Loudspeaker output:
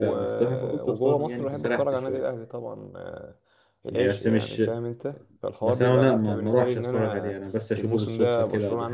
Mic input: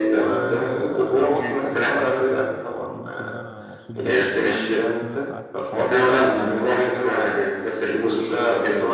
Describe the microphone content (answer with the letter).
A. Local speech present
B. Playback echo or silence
A